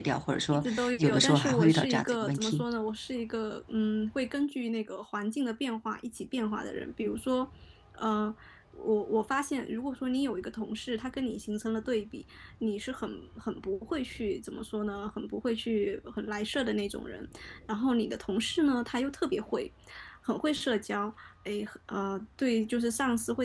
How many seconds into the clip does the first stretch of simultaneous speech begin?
0.5 s

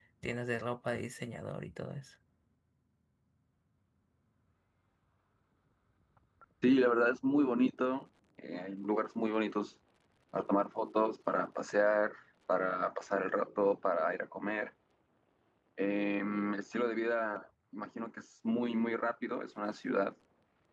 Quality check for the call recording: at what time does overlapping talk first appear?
none

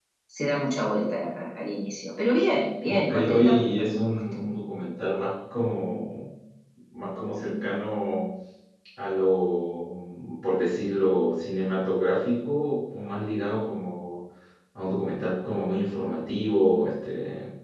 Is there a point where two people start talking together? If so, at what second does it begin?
2.9 s

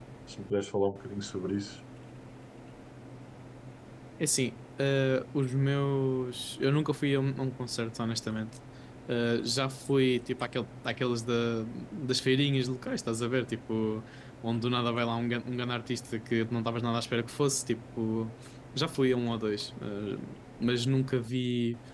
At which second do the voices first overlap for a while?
none

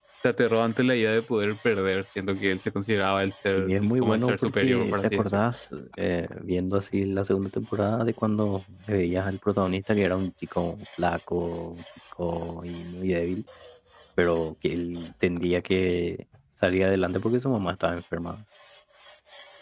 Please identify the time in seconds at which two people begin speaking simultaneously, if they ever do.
3.6 s

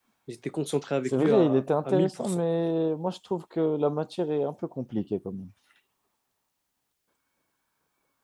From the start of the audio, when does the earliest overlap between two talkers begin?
1.1 s

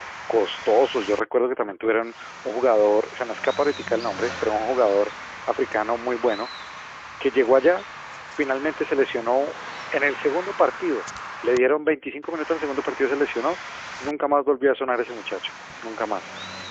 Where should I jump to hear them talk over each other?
none

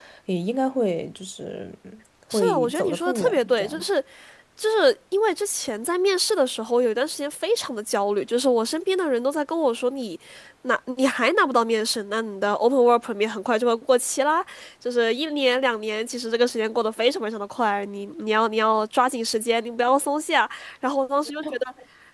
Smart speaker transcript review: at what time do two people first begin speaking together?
2.3 s

